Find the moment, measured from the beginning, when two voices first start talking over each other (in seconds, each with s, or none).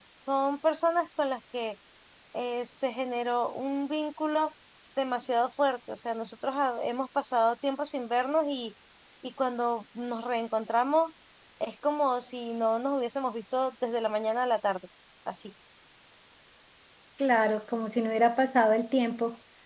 none